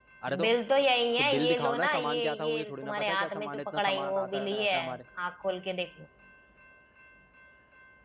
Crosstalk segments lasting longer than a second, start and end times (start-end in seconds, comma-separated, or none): 1.2-5.0